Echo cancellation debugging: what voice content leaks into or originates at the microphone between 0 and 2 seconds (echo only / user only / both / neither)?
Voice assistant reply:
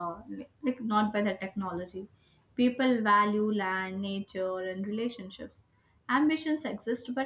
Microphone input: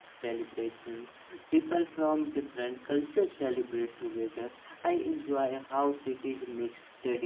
user only